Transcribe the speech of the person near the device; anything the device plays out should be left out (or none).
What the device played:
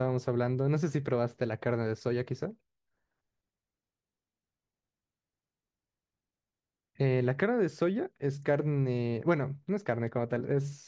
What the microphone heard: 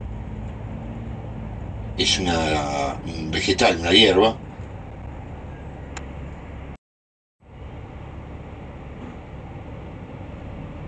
es una, un vegetal, una hierba,